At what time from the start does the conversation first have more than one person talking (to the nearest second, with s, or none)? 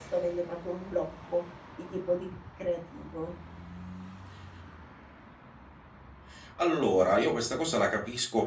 none